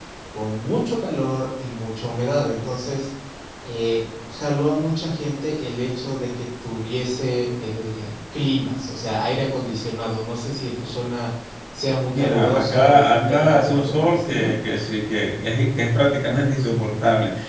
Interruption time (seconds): 12.1 s

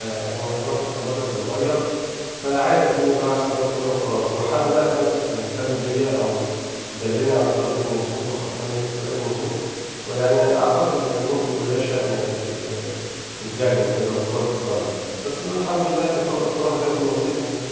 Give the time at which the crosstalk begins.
none

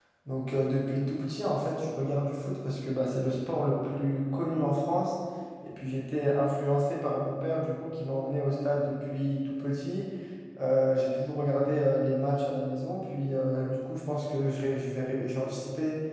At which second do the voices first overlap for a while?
none

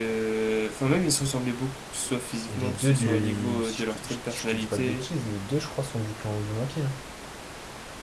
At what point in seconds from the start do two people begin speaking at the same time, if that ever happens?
2.5 s

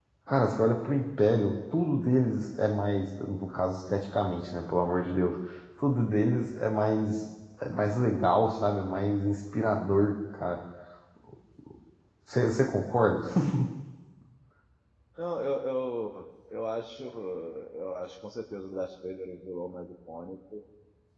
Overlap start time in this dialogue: none

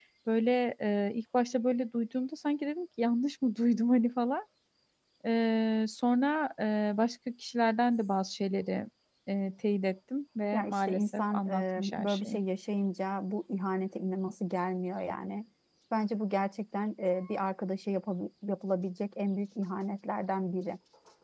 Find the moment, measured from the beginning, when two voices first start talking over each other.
10.5 s

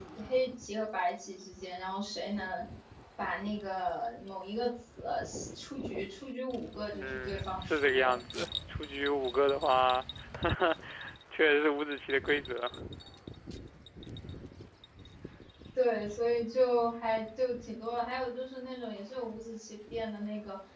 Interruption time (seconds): 6.9 s

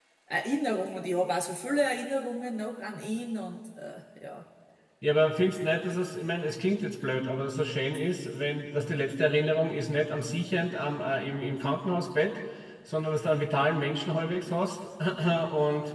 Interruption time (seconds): none

